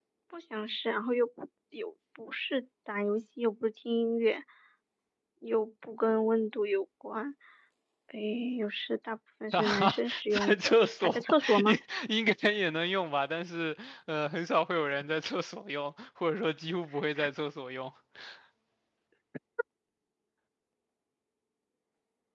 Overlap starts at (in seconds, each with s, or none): 9.5 s